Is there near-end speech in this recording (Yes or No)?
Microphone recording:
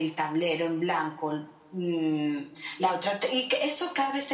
No